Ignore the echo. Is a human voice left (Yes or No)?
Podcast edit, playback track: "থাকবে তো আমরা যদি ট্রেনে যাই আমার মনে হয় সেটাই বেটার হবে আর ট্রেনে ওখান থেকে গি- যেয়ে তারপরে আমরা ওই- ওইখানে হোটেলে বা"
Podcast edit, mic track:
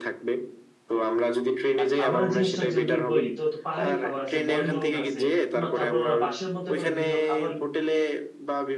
Yes